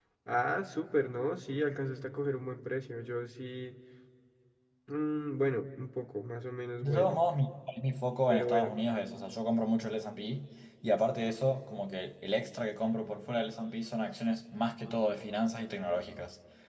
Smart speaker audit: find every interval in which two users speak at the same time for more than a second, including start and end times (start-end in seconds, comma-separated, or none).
none